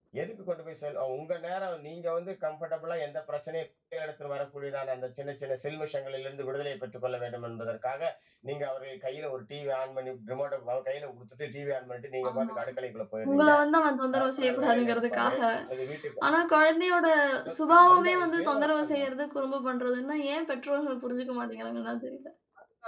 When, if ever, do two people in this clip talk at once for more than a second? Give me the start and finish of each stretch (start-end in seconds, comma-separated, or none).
14.2-15.4, 17.7-19.1